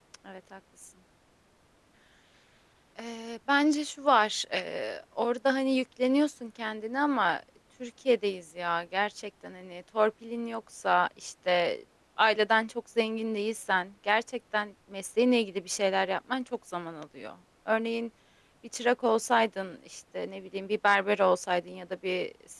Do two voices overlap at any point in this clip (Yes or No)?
No